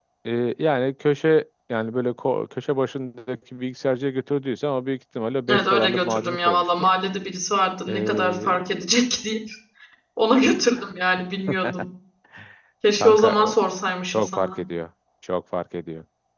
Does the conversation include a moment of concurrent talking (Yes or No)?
Yes